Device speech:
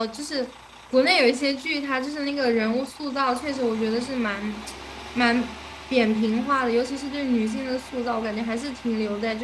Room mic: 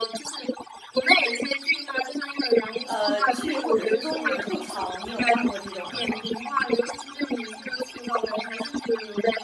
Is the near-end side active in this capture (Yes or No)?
Yes